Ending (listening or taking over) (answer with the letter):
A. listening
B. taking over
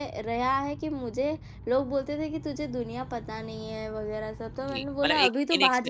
B